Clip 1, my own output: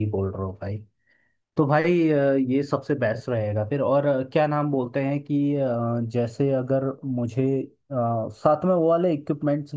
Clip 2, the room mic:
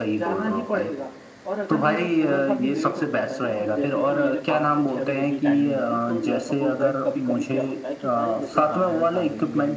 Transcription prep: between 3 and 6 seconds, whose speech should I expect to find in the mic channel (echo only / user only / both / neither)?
both